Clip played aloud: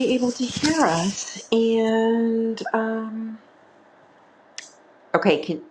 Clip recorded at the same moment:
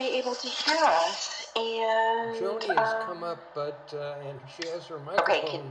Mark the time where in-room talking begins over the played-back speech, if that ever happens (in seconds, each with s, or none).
2.2 s